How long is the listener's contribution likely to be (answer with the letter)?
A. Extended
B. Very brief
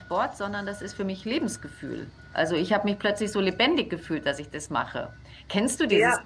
A